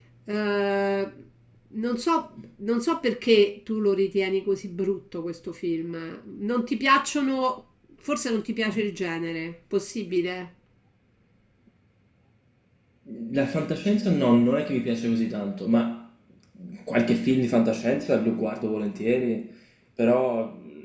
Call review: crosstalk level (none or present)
none